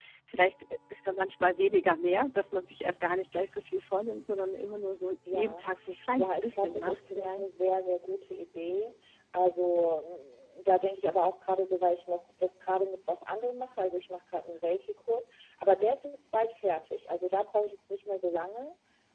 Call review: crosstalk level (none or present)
present